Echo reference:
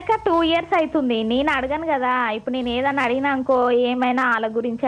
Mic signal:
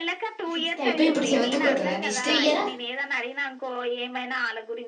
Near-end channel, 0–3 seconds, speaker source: both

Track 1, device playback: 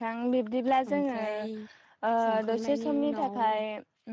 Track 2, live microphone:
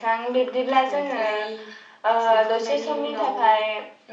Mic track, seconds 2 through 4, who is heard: echo only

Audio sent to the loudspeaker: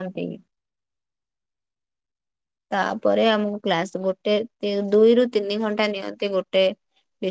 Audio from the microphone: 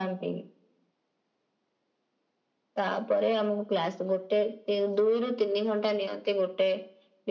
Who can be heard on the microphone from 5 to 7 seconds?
echo only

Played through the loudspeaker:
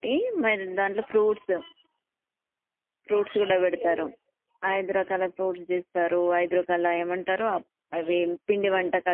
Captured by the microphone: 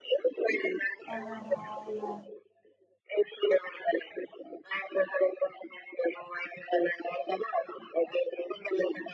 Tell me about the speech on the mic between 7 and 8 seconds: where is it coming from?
echo only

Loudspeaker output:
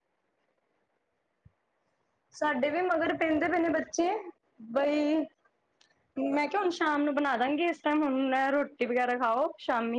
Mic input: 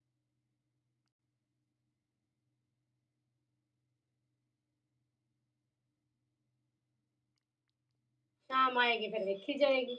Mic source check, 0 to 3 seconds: neither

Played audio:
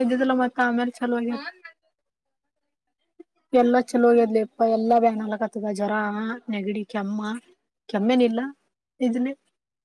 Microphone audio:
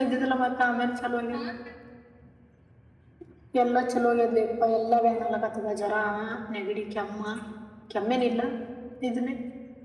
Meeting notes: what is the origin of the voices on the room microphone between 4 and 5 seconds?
echo only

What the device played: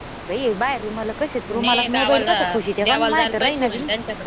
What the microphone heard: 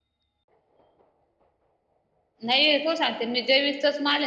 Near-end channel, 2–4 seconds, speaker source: user only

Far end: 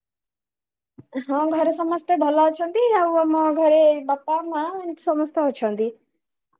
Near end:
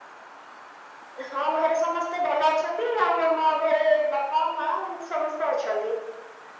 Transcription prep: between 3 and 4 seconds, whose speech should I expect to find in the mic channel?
echo only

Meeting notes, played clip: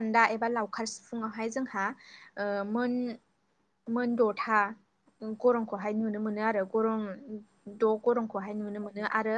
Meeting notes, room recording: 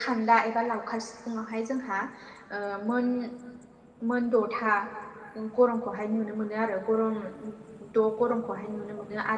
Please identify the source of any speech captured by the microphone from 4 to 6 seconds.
echo only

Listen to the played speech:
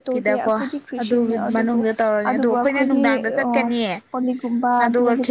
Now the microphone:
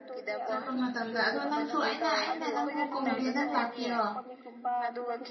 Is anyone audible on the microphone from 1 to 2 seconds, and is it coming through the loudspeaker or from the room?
both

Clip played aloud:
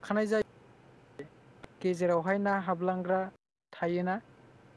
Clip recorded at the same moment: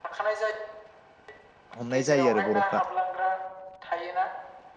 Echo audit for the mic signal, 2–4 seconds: both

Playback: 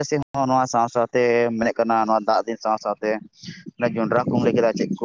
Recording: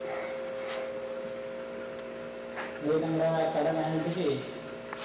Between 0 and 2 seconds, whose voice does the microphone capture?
neither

